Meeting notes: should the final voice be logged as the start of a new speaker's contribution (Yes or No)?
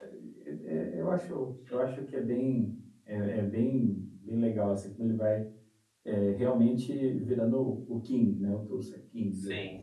Yes